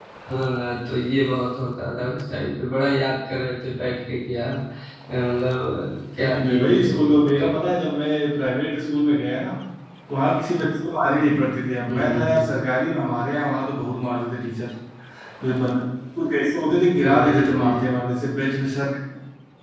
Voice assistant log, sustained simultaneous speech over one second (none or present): present